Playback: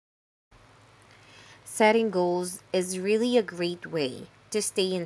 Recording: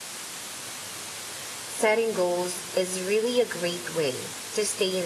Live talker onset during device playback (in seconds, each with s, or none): none